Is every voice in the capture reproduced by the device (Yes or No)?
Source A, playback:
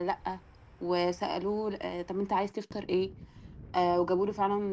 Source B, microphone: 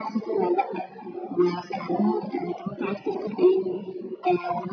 Yes